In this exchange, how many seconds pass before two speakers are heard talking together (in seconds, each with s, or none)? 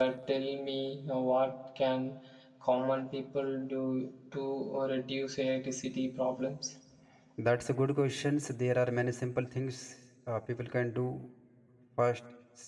none